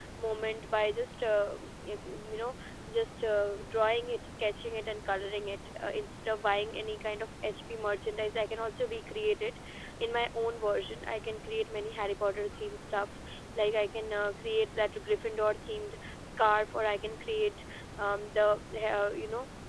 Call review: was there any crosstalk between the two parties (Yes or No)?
No